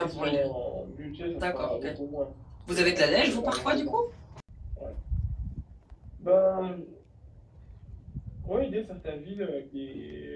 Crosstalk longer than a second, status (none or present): present